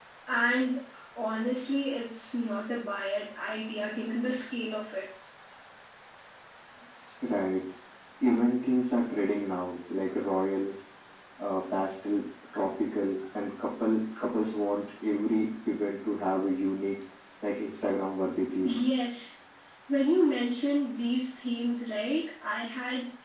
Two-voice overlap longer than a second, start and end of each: none

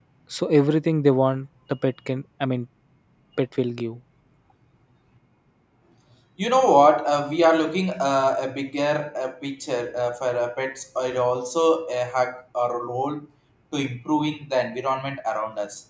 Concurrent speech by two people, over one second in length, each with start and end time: none

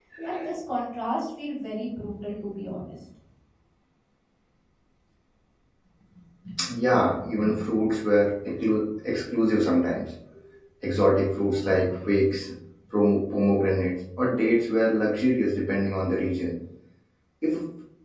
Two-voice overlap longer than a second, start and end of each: none

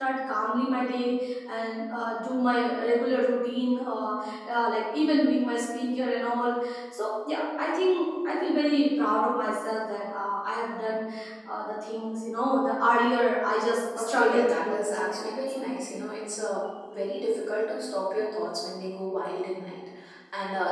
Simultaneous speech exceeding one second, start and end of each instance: 14.0-15.8

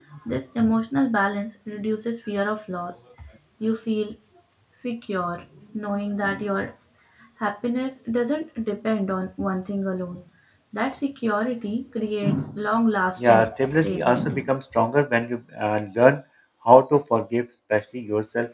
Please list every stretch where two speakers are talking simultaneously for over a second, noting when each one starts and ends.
13.2-14.5

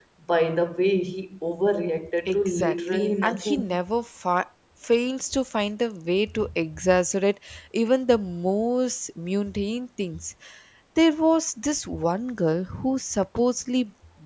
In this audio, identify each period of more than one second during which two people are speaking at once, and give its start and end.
2.3-3.8

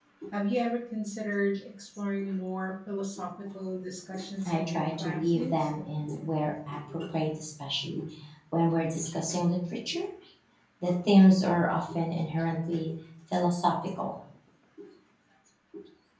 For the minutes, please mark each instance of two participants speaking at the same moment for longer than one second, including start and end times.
4.4-5.7

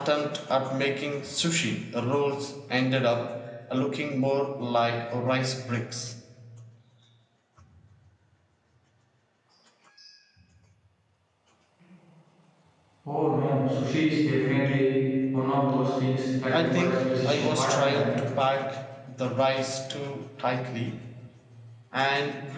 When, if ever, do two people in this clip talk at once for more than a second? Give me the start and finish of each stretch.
16.5-18.1

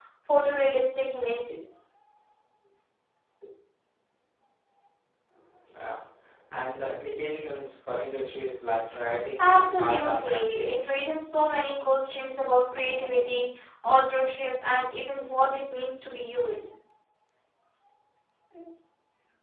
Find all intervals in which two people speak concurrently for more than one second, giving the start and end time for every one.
9.4-10.7

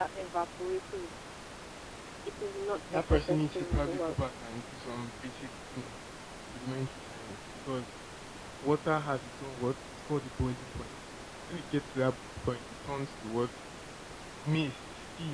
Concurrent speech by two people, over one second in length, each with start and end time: 2.9-4.2

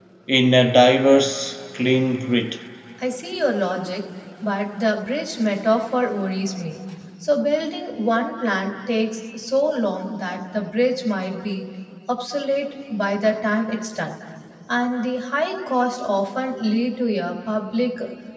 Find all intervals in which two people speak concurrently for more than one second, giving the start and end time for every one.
none

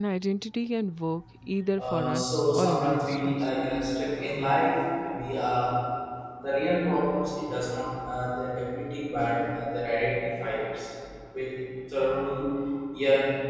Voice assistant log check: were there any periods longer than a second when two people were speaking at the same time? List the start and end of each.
1.8-3.5

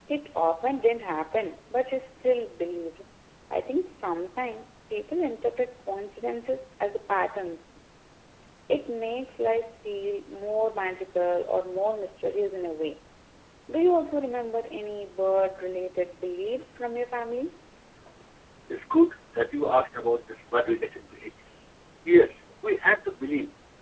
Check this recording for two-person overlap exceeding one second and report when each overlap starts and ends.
none

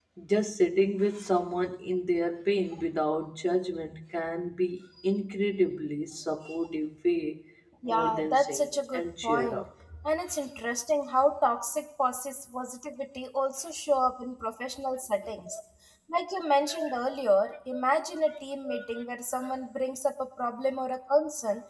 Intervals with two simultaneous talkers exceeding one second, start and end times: 7.8-9.6

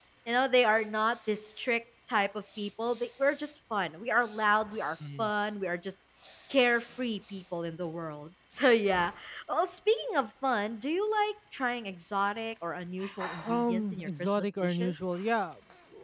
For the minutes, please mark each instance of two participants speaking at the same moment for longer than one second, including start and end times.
13.4-15.1

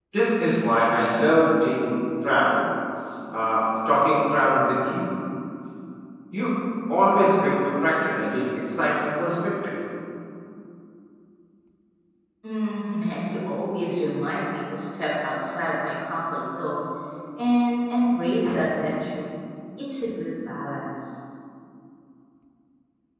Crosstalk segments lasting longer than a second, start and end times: none

